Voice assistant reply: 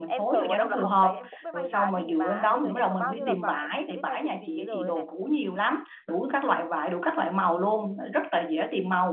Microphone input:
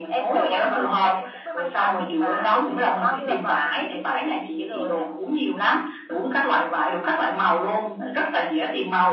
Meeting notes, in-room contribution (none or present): none